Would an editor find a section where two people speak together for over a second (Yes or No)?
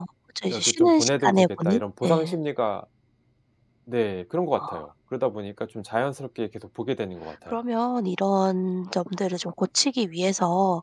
Yes